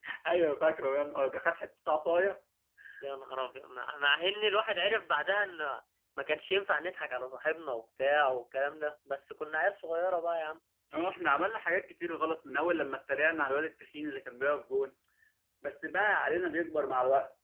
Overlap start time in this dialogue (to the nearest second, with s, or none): none